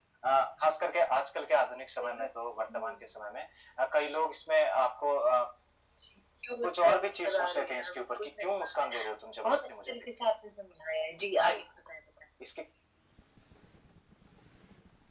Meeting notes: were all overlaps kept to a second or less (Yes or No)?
No